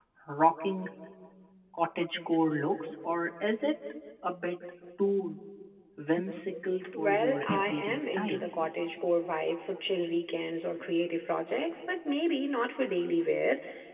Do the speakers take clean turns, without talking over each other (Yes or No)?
No